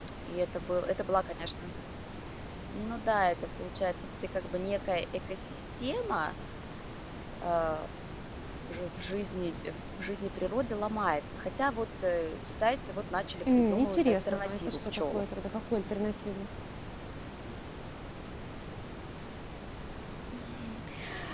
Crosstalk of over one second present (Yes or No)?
Yes